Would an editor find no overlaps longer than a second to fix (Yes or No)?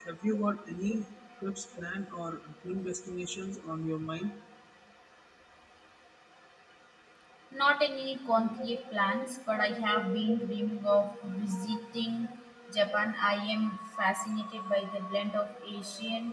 Yes